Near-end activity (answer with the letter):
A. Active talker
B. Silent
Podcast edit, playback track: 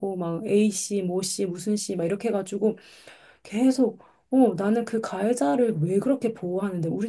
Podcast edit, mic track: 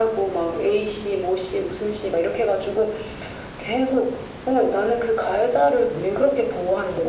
B